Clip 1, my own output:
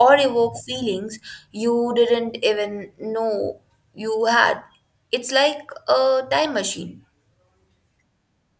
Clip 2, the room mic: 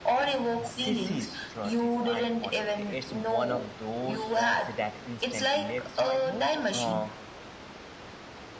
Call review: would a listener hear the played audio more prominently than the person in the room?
Yes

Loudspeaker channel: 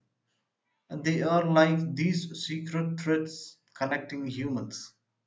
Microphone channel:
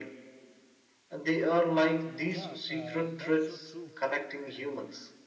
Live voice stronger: No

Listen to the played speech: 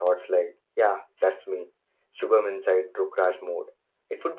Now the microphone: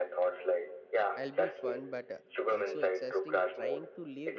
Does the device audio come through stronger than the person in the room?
Yes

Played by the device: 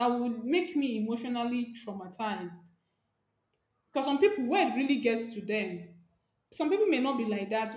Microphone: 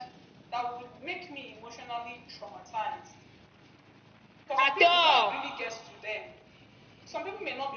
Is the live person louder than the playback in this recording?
Yes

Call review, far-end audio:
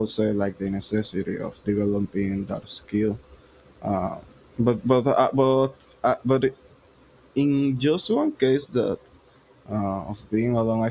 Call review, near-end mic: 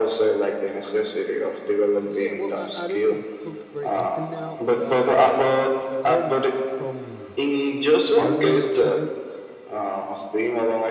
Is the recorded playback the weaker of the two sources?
No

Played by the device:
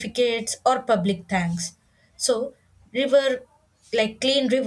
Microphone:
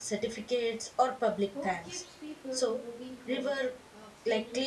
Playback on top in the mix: Yes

